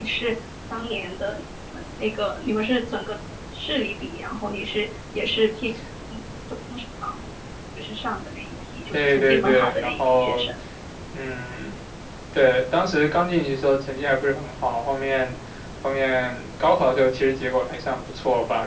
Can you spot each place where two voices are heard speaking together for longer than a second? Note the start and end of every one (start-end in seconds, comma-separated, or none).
8.9-10.5